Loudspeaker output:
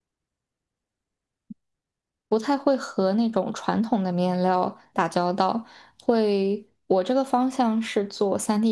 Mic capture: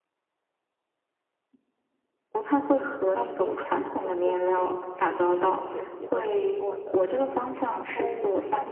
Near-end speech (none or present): present